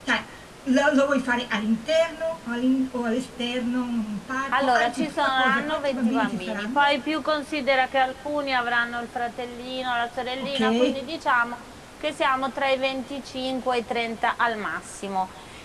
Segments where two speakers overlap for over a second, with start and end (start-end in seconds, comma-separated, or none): 4.5-7.0